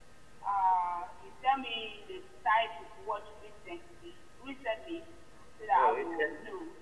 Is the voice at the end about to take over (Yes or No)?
Yes